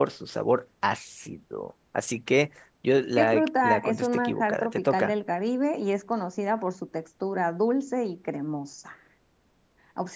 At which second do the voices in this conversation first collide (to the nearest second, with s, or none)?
3 s